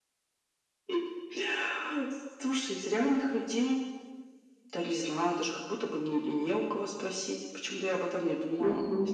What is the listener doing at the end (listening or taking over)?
taking over